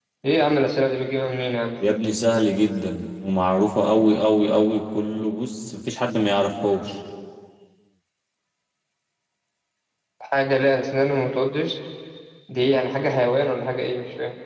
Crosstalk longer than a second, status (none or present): none